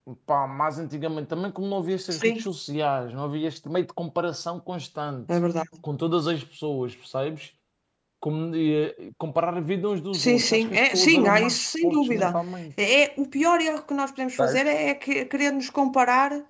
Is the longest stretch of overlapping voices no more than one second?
No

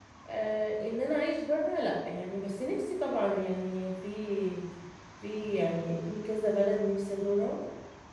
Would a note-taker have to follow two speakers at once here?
No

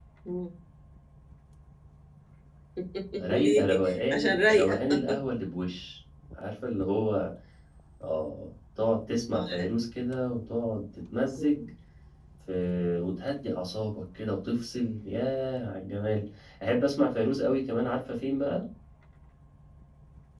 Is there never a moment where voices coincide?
No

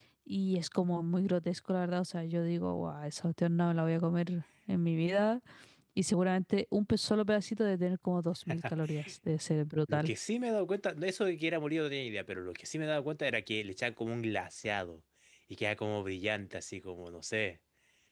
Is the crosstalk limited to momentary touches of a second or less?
Yes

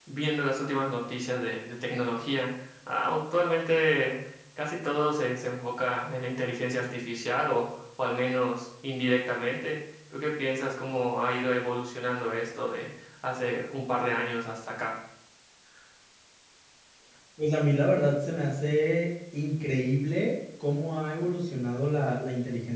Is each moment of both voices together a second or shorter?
Yes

